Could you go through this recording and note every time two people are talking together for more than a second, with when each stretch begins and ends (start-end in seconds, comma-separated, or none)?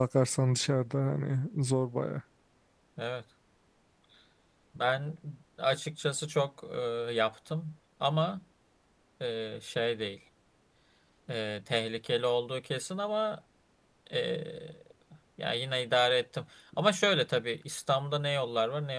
none